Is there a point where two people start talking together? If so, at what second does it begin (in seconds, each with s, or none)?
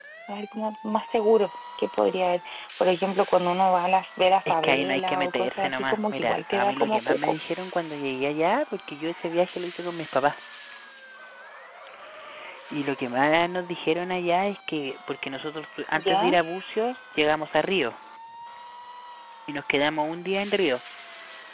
4.5 s